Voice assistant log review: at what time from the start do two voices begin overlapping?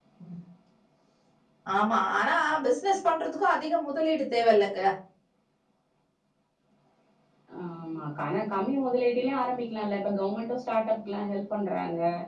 none

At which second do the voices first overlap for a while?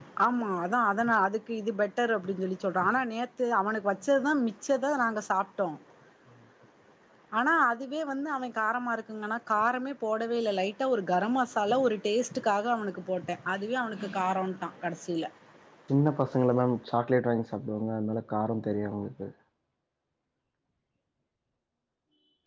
none

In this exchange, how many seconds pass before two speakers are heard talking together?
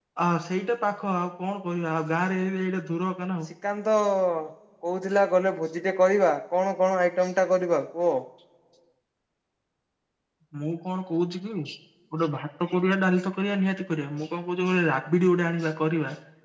none

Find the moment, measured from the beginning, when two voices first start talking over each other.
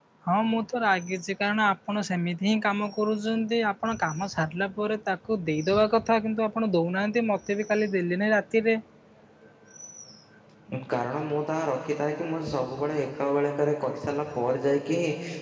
none

